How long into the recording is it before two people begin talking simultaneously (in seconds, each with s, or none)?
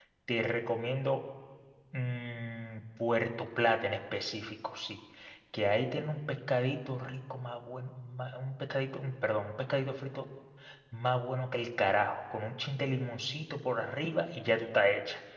none